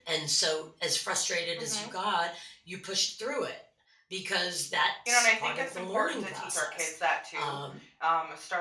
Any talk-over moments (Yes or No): Yes